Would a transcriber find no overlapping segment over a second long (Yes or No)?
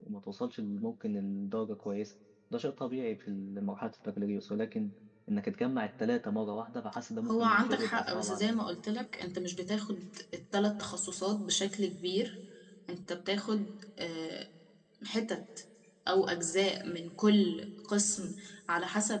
No